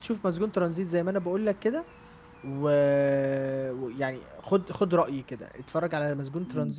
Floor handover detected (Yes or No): Yes